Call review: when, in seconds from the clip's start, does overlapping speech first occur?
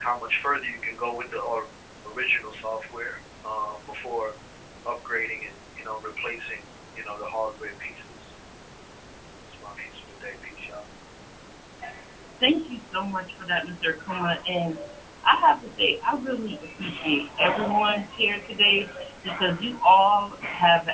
none

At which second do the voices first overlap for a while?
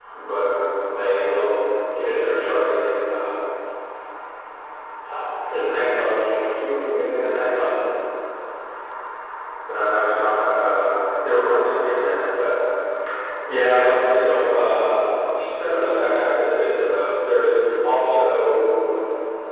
none

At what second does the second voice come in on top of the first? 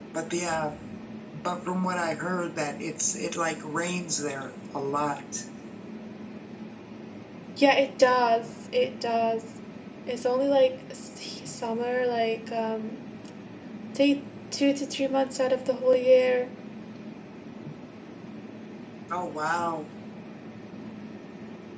none

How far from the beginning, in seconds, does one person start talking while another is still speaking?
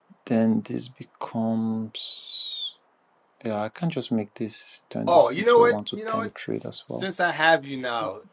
5 s

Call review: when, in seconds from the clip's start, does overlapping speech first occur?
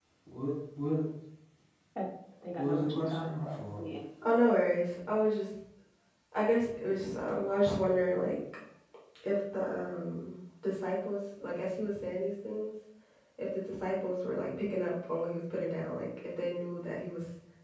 3 s

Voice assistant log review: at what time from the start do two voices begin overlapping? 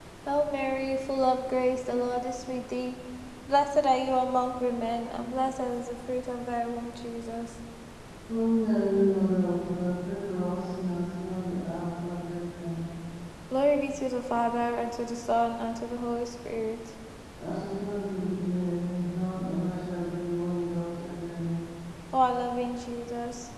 none

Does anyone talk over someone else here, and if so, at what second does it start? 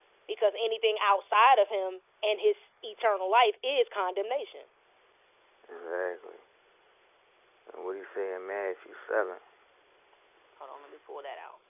none

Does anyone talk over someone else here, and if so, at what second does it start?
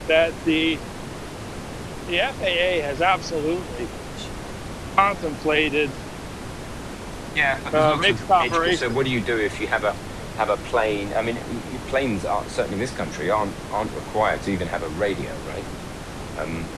8 s

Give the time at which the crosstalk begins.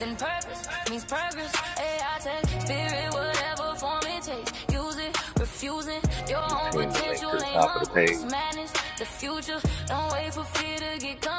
6 s

